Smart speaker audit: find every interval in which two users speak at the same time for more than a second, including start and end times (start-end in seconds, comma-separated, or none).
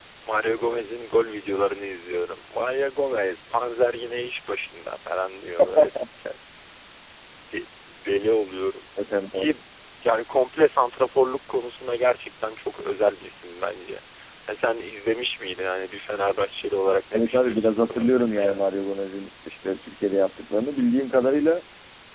17.1-18.6